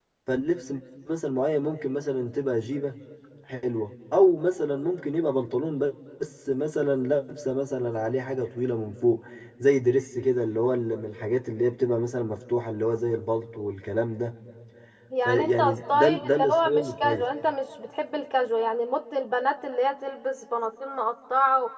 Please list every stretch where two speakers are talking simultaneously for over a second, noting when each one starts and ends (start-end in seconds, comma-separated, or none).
15.2-17.3